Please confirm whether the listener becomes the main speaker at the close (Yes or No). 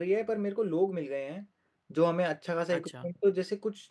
No